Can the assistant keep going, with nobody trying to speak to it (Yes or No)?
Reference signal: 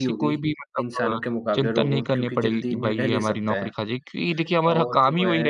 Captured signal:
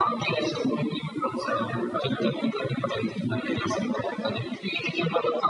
Yes